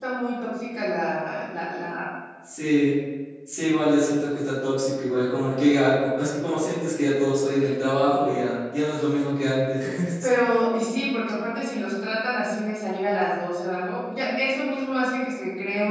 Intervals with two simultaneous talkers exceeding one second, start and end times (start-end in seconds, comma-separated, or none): none